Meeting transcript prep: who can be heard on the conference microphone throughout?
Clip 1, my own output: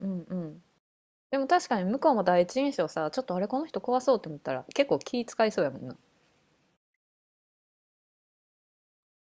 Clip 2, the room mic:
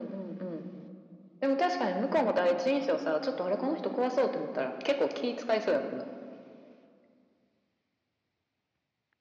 echo only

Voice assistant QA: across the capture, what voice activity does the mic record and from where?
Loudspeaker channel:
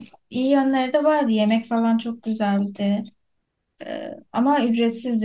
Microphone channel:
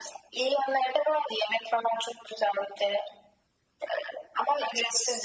echo only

